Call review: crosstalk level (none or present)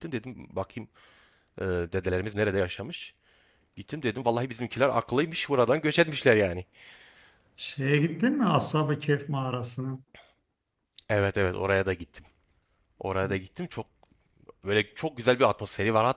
none